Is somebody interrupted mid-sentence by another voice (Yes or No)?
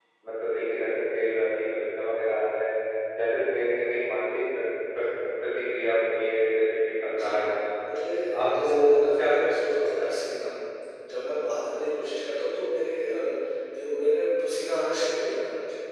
Yes